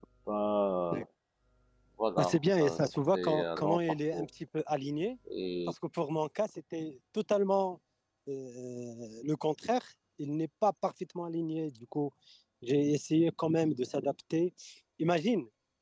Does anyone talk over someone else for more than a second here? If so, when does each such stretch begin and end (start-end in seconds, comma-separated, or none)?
2.2-4.3